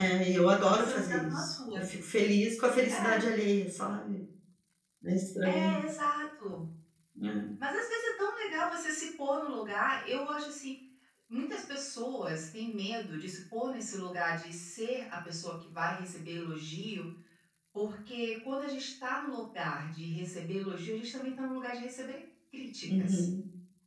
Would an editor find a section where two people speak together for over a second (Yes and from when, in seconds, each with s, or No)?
Yes, from 0.6 s